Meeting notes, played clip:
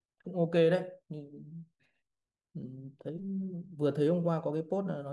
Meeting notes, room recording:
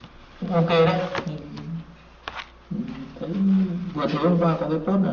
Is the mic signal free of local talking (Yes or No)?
Yes